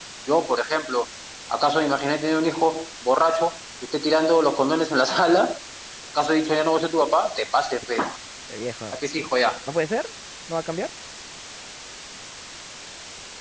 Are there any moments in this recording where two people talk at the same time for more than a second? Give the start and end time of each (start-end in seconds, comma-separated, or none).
none